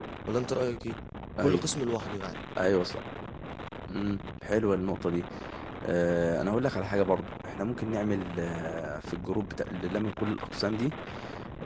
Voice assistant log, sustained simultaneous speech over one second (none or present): none